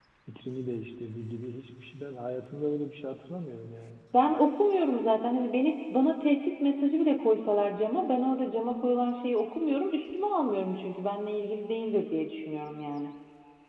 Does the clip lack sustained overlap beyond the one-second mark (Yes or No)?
Yes